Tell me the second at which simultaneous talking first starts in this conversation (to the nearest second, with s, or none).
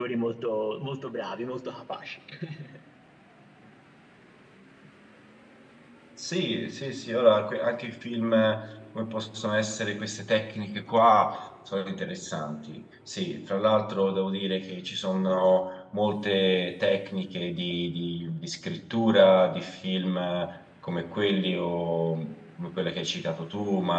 none